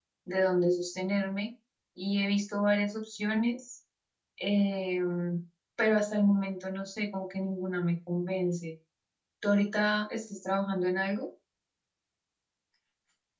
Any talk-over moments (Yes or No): No